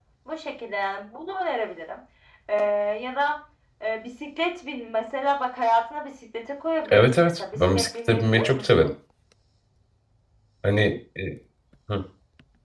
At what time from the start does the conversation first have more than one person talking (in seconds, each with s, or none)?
6.9 s